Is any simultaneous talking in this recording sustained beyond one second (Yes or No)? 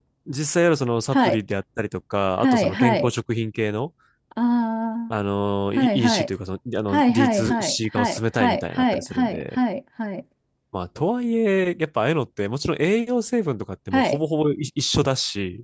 Yes